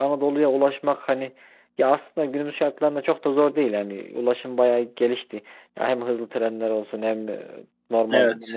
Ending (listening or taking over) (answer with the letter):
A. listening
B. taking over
A